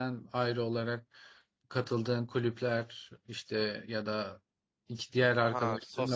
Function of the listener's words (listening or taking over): taking over